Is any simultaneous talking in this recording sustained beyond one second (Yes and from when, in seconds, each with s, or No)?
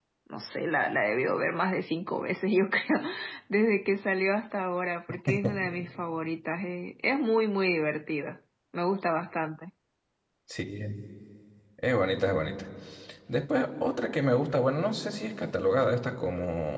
No